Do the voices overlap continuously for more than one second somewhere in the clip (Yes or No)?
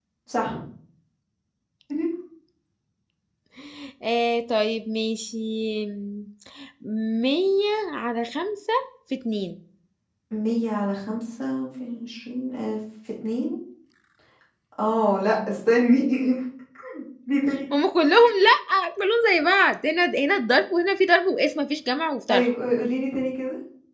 No